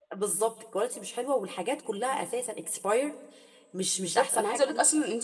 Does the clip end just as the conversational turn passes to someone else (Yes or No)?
Yes